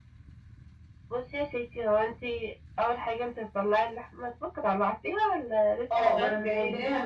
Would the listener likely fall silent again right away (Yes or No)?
No